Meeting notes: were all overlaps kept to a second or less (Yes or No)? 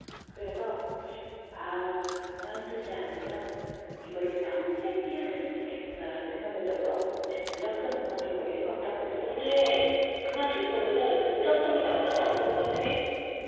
Yes